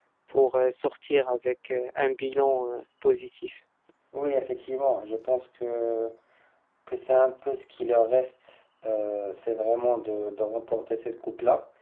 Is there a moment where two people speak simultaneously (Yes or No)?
No